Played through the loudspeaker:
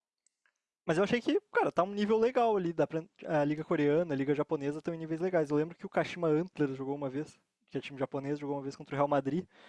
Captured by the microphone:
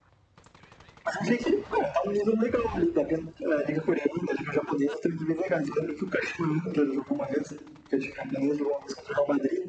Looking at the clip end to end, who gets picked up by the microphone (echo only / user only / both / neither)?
echo only